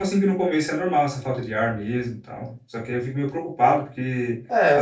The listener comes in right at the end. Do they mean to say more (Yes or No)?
No